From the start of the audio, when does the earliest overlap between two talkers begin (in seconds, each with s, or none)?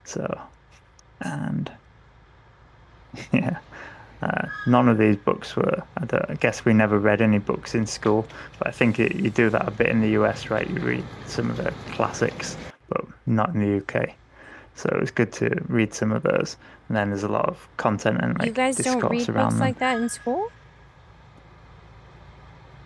18.4 s